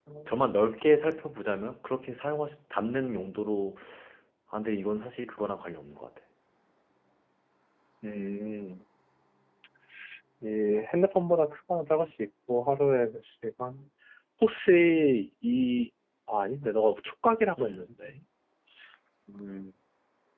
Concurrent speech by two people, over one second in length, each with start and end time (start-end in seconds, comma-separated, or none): none